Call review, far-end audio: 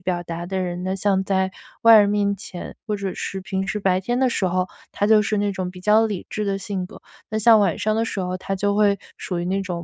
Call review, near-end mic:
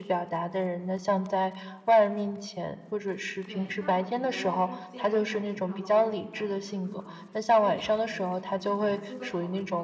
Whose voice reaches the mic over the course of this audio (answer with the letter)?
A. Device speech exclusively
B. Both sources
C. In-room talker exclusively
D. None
B